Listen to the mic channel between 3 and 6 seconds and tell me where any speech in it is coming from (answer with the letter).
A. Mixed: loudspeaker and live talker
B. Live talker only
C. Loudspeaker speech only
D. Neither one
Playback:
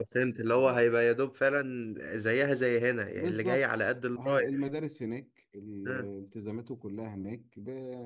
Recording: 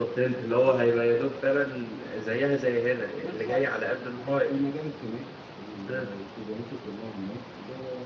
C